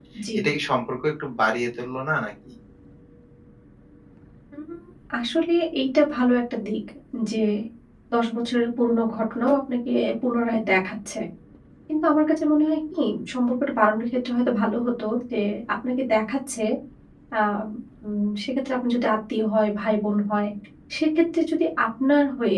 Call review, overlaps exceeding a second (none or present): none